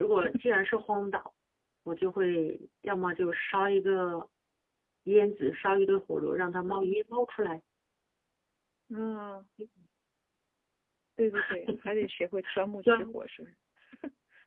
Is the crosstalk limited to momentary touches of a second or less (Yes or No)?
Yes